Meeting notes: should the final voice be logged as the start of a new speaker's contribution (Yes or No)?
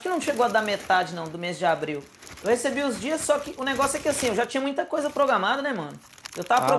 Yes